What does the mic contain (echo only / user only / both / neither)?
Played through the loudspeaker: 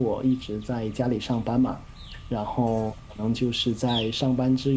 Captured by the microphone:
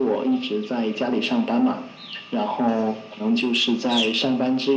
echo only